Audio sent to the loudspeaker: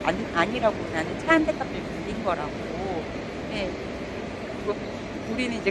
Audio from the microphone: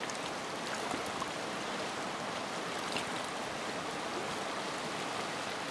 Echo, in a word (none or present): none